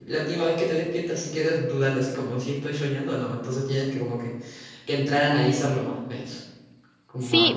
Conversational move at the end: taking over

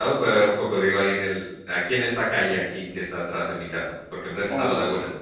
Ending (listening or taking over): taking over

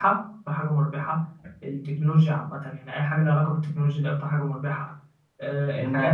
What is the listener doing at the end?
taking over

